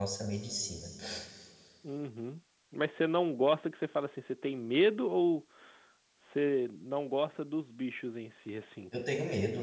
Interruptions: none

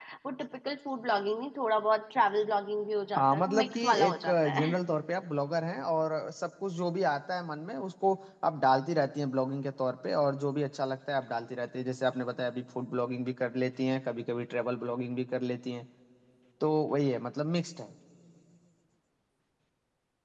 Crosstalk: present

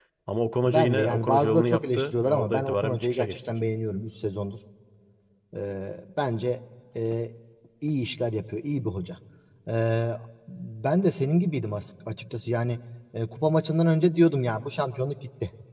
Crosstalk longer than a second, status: present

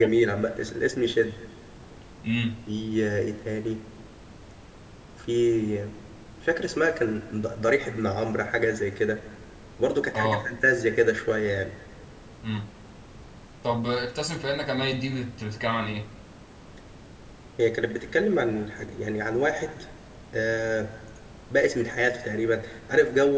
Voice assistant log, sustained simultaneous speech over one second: none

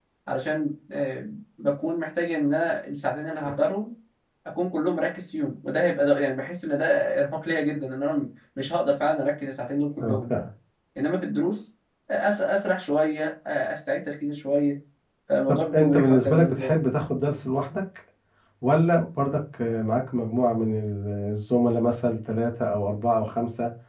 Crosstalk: present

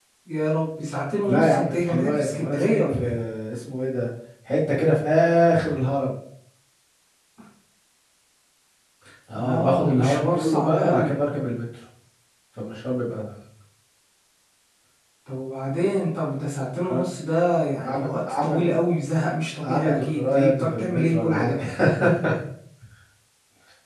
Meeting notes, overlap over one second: present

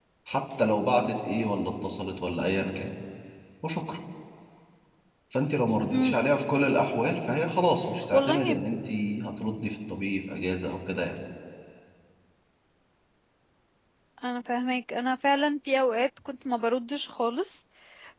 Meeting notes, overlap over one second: none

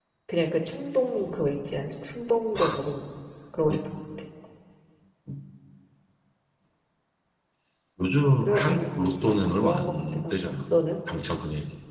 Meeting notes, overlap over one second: present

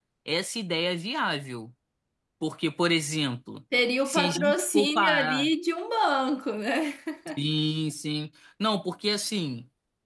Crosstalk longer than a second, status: present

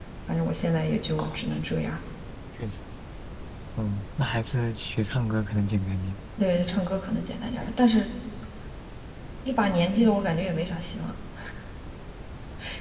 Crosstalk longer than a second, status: none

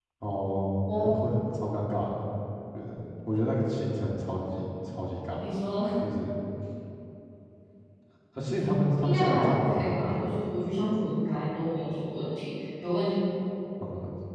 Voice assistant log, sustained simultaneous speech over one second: present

